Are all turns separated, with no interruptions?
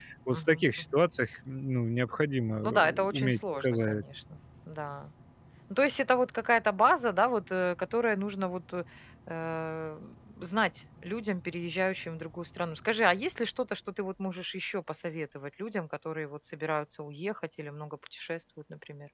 No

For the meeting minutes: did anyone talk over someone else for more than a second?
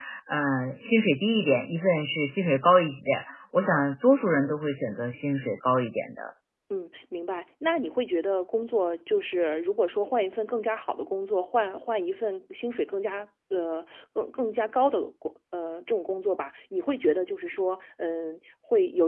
No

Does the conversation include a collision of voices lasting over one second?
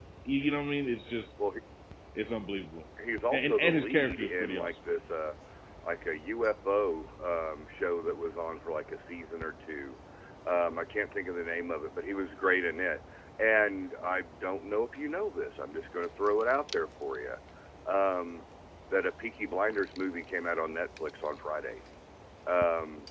Yes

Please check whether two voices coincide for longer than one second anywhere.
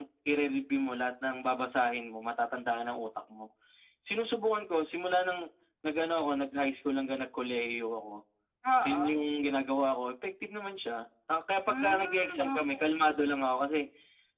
Yes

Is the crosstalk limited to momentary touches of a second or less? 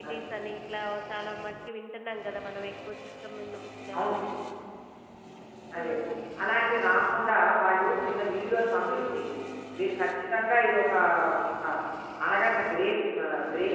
Yes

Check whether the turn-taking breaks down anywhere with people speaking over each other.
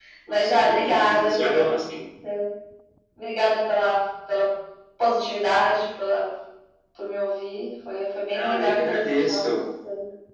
Yes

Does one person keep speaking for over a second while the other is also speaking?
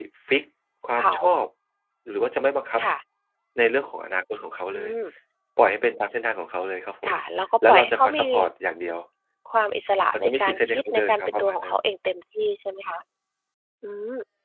Yes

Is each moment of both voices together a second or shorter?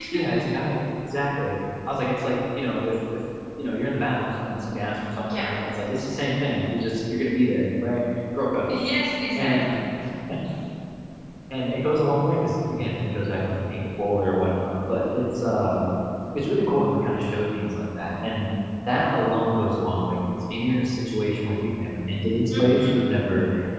Yes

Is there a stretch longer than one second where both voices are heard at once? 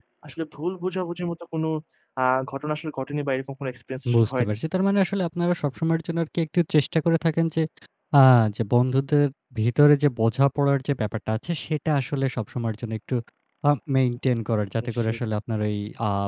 No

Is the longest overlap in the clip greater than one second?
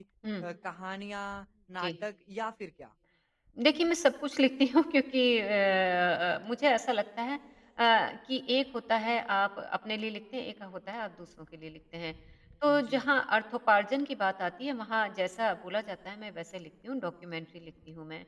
No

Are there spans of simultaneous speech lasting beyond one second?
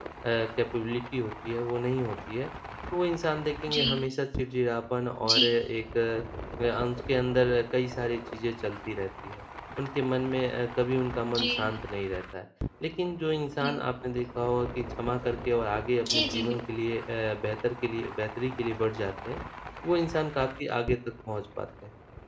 No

